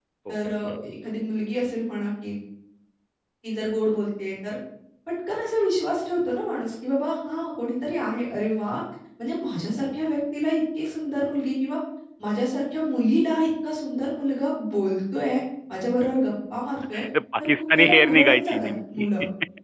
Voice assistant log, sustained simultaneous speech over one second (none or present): present